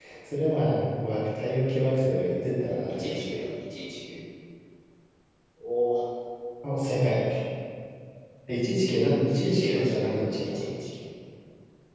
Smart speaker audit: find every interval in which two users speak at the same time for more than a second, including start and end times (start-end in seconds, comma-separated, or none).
9.4-10.6